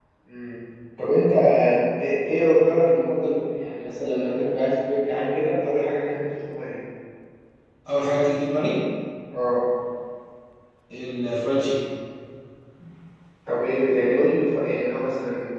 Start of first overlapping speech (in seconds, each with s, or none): none